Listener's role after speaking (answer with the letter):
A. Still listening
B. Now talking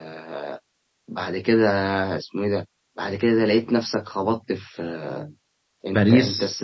A